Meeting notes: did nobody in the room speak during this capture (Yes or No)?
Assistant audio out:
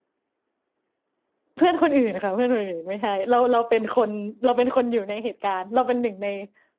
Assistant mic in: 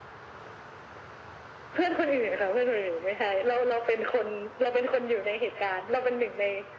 Yes